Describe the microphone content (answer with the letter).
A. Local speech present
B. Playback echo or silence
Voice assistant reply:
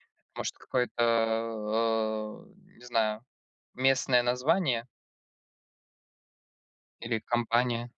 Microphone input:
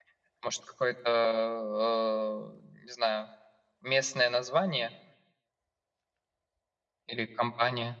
B